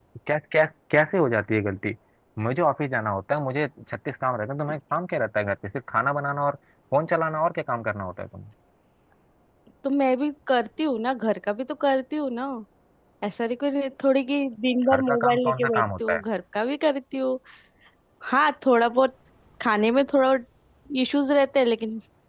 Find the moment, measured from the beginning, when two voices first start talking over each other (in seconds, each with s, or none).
14.9 s